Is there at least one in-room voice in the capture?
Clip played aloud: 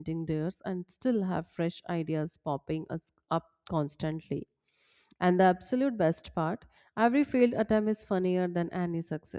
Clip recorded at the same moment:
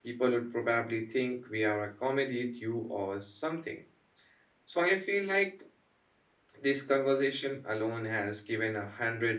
Yes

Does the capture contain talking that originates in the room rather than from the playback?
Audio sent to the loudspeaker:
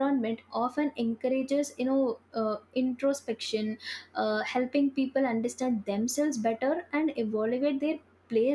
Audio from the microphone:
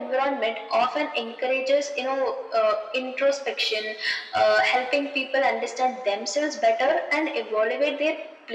No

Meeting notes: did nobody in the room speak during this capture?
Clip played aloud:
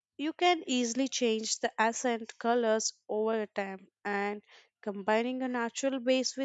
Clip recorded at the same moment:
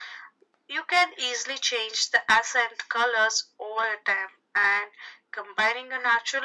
Yes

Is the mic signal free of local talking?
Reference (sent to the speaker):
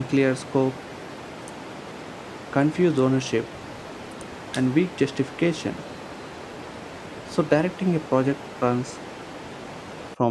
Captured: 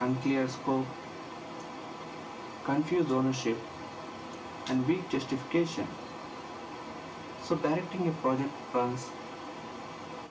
Yes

